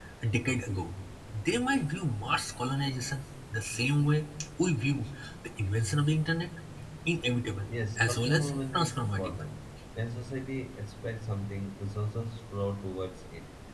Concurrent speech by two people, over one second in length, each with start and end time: 7.7-9.4

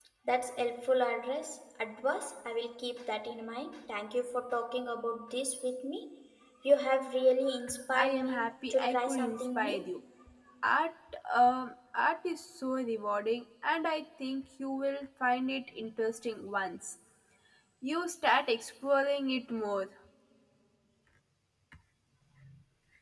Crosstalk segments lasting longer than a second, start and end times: 8.0-9.9

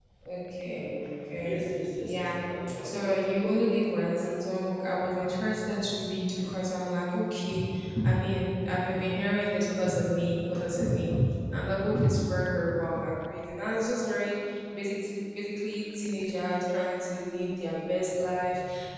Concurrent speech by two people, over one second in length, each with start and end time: 2.8-4.1

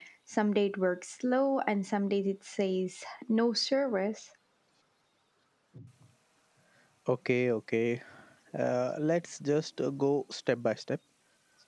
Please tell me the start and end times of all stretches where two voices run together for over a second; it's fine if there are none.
none

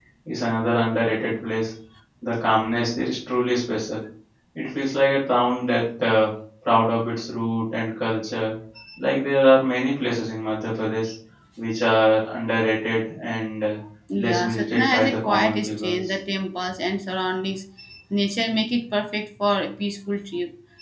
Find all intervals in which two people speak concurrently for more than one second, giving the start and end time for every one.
14.2-16.2

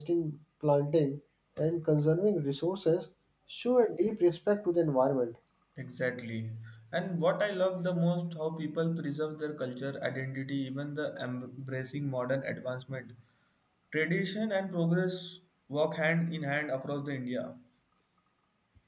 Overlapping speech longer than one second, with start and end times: none

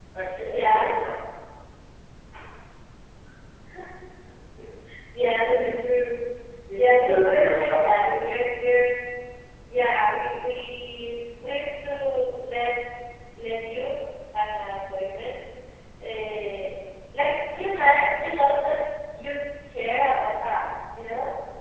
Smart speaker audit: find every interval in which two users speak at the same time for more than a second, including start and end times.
6.7-8.1

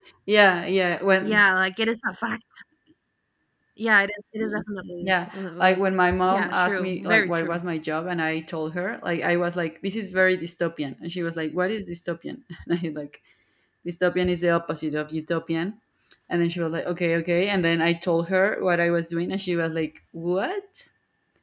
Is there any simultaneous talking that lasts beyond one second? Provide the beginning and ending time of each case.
5.0-7.6

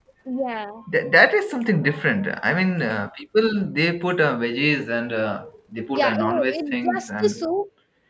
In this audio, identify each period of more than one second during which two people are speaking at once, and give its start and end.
5.9-7.3

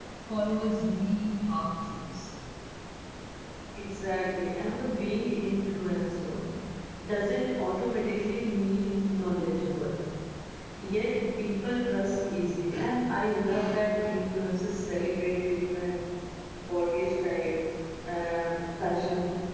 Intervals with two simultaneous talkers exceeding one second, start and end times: none

